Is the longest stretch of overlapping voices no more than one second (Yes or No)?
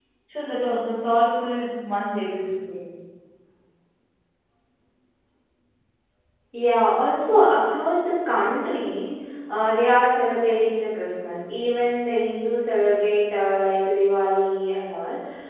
Yes